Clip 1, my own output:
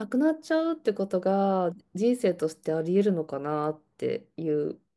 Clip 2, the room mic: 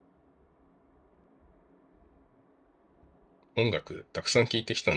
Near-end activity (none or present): present